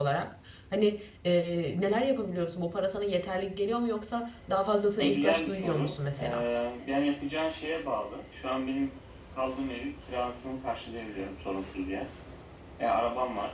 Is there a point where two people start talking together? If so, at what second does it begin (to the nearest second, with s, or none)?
5 s